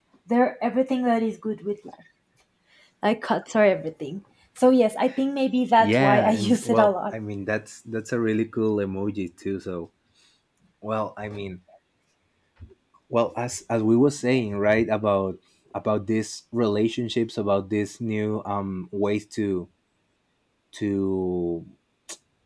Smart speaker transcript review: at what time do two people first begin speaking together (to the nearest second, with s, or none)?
6 s